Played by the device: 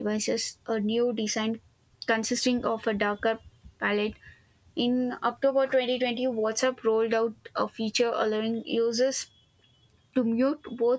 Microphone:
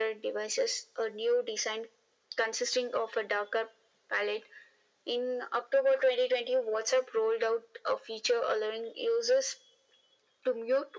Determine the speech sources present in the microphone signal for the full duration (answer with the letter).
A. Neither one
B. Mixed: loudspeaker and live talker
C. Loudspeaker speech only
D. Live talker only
C